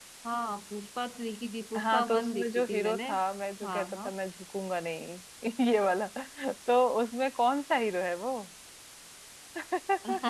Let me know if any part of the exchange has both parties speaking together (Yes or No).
Yes